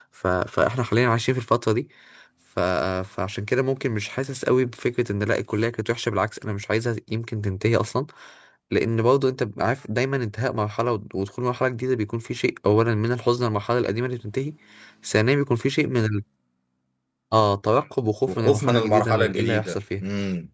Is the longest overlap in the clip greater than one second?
Yes, from 18.2 s

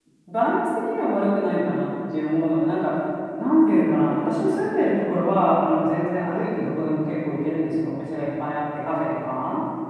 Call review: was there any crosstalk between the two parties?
No

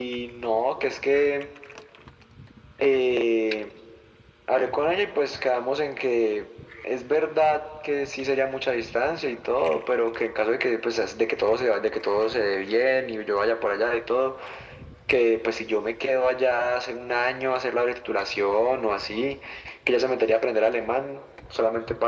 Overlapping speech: No

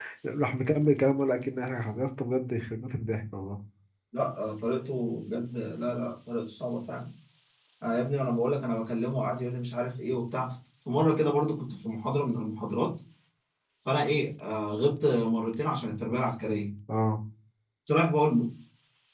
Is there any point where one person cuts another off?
No

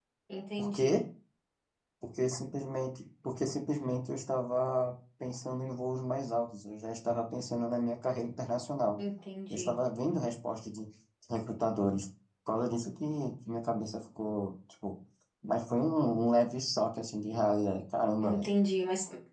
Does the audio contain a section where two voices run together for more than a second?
No

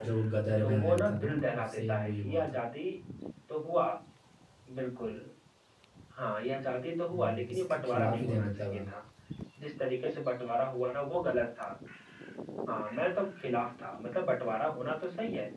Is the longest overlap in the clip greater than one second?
Yes, from 0.6 s

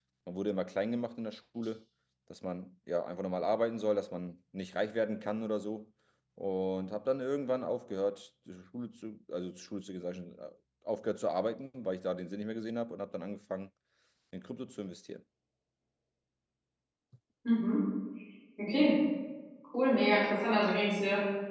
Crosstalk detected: No

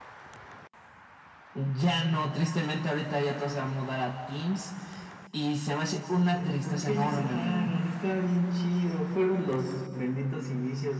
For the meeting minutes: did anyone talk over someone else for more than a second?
Yes, from 6.3 s

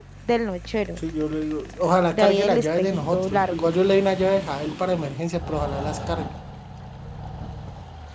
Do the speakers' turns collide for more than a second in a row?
Yes, from 2.1 s

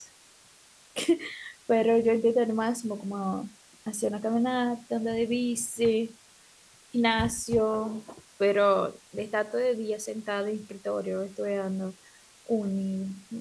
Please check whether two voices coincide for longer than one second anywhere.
No

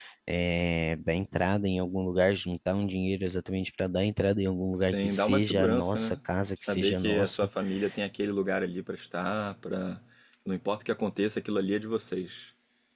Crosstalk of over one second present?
Yes, from 4.8 s

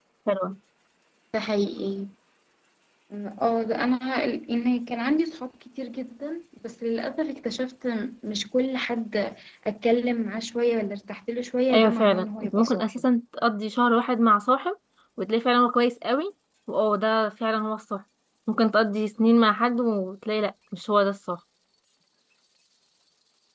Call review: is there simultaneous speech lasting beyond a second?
Yes, from 11.7 s

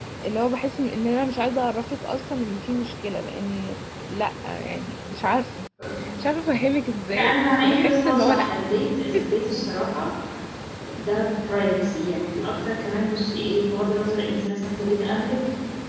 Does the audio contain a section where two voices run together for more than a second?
Yes, from 7.1 s

